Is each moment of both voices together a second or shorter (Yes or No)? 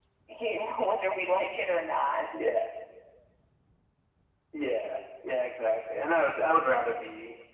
Yes